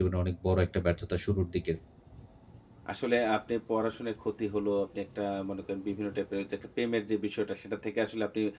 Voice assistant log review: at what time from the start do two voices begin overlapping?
none

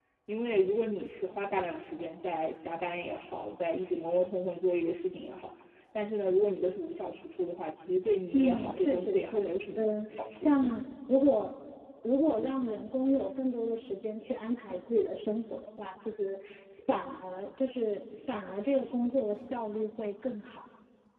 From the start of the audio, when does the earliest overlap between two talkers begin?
8.3 s

